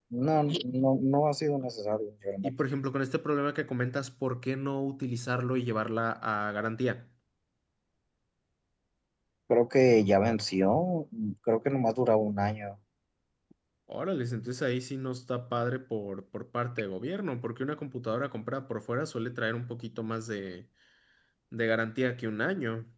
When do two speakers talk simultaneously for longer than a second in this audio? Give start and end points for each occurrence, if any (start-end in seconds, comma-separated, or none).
none